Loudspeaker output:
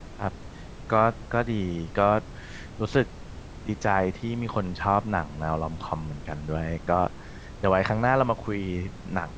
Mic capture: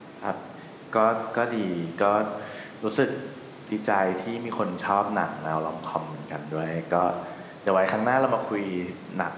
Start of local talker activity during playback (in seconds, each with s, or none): none